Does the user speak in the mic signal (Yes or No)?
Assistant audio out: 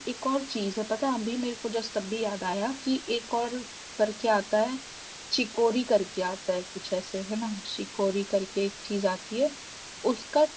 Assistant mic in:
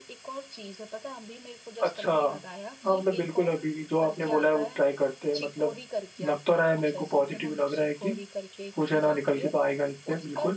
Yes